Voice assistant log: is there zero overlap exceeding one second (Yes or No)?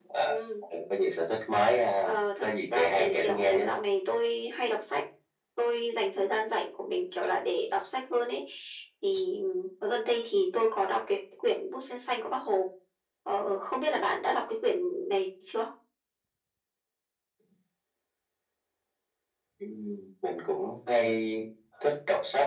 No